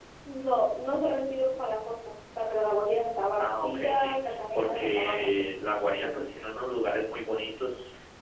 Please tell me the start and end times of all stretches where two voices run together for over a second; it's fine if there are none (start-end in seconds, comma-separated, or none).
3.4-5.3